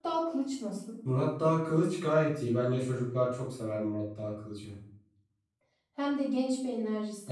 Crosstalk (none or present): none